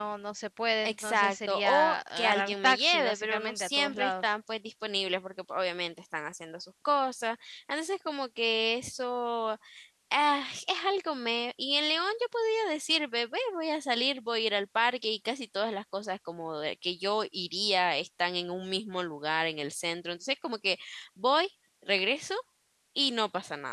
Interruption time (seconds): 0.8 s

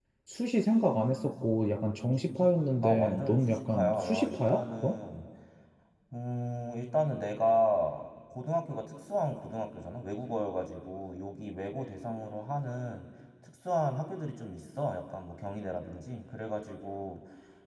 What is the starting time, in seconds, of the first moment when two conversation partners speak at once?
2.8 s

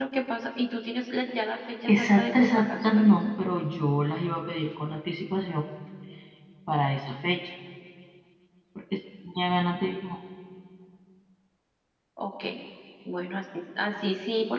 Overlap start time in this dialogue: 1.9 s

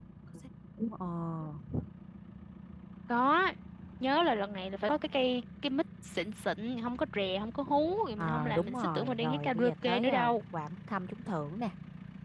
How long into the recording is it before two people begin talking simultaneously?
8.2 s

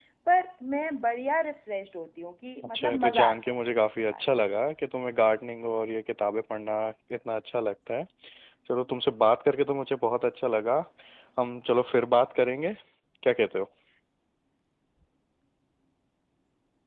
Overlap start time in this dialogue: 2.7 s

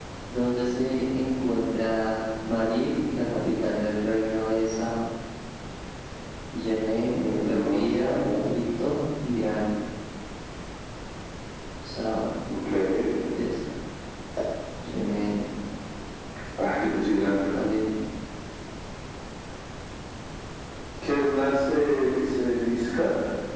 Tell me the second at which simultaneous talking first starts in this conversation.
7.2 s

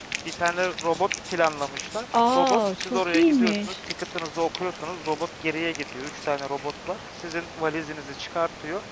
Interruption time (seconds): 2.1 s

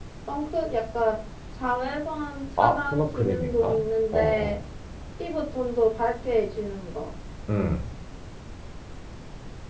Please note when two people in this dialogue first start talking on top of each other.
2.6 s

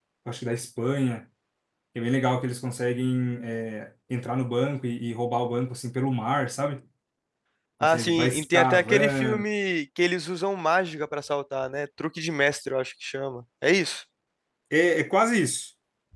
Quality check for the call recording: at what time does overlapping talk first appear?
7.8 s

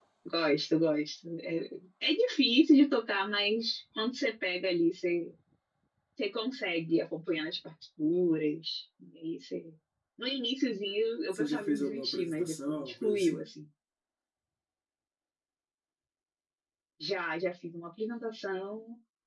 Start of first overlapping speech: 11.3 s

